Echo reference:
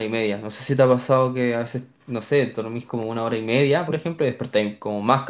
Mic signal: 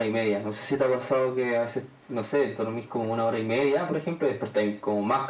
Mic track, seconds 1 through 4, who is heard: echo only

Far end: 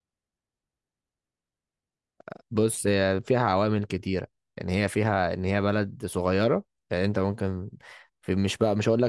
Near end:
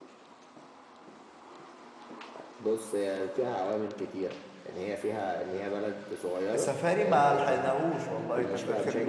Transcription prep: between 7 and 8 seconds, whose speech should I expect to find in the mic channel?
both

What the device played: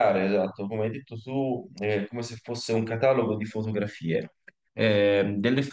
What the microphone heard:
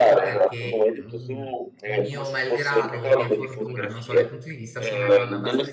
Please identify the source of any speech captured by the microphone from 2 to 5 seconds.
both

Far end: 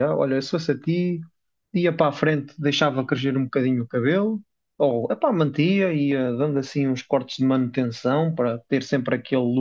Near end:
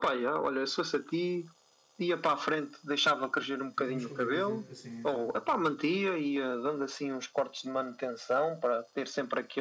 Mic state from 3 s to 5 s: both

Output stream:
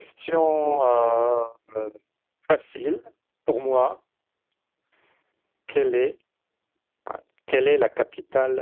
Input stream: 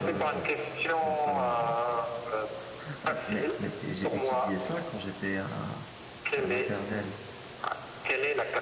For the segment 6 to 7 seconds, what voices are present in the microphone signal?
both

